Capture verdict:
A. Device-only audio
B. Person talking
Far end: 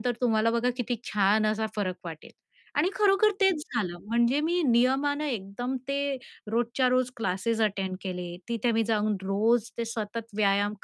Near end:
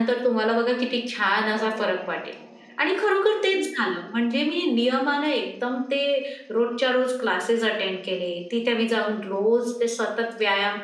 B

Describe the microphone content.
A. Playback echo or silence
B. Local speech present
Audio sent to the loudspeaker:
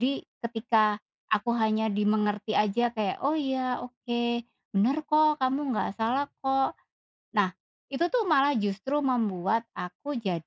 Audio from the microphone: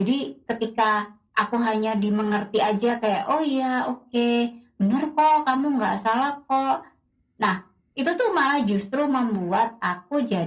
A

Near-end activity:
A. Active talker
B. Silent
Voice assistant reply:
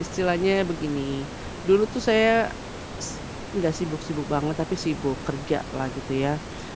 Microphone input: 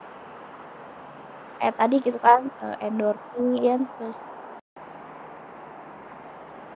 A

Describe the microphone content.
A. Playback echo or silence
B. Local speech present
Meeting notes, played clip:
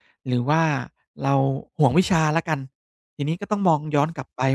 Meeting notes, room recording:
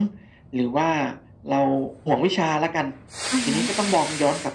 B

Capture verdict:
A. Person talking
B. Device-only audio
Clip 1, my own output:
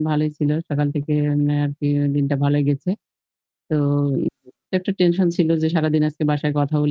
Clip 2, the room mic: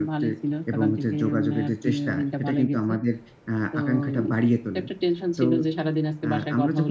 A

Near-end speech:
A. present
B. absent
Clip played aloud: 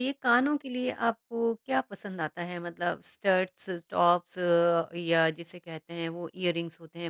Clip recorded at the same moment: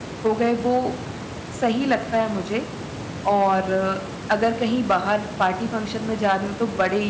A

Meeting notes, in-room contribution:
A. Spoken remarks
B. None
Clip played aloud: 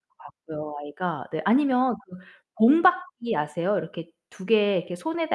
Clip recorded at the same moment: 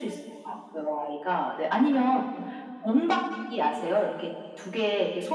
B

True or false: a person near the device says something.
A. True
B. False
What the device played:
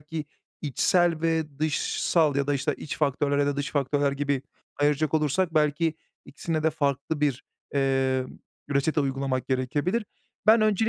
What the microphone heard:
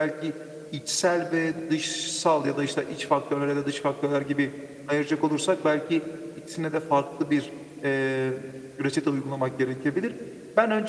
B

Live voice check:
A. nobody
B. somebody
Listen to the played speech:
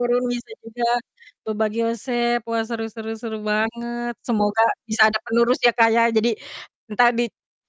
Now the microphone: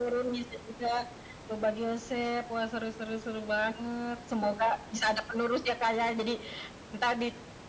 A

